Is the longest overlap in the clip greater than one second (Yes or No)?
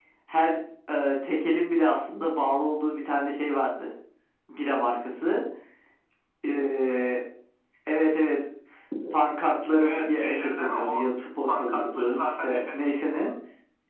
Yes